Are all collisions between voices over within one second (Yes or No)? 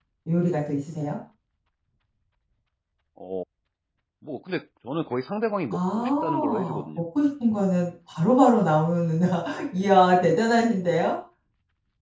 No